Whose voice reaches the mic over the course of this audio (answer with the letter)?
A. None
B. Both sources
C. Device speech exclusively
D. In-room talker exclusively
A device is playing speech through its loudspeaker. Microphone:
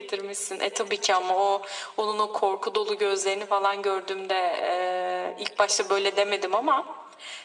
C